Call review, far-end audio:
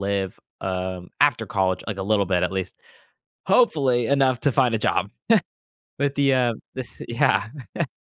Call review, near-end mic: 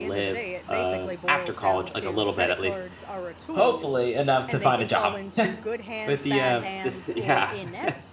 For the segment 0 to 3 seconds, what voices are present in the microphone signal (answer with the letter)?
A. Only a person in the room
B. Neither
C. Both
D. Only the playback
C